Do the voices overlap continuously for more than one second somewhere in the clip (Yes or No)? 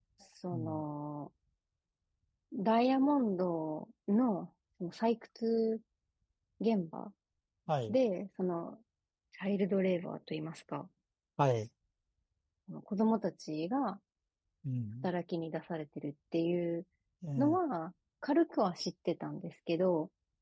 No